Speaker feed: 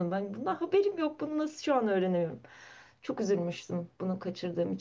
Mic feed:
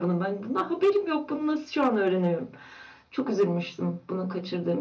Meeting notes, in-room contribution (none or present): none